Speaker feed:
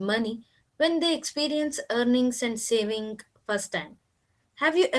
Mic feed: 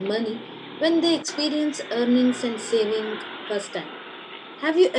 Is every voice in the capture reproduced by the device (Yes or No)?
Yes